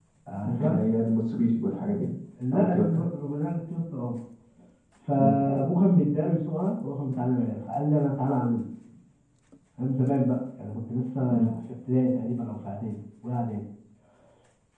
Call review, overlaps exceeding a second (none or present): none